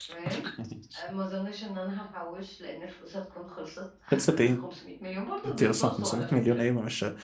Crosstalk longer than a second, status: present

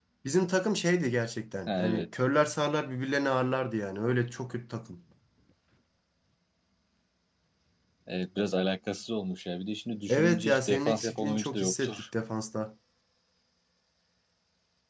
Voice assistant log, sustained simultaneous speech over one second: present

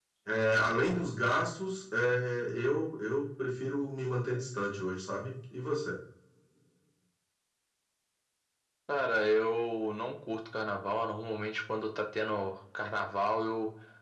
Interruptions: none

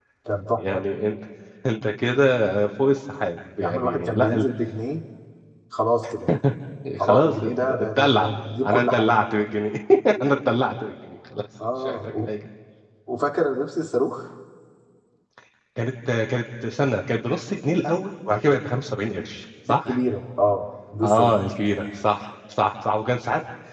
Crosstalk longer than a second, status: present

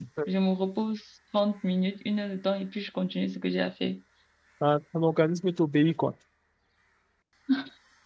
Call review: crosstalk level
none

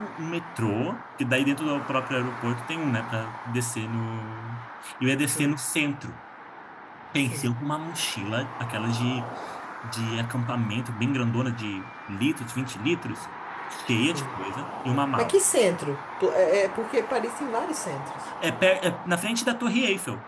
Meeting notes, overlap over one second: none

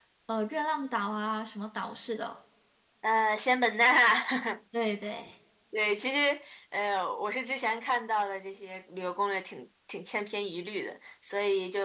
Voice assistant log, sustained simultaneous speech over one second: none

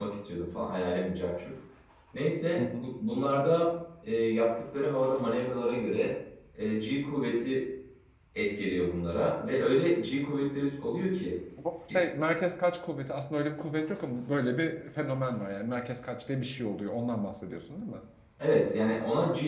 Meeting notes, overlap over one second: none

